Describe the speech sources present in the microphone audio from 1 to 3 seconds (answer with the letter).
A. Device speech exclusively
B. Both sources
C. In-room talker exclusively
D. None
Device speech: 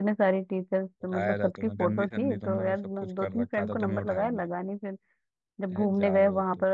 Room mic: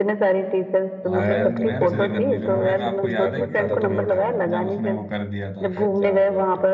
B